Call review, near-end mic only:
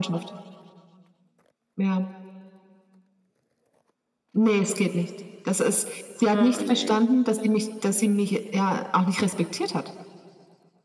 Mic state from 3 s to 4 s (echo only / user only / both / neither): neither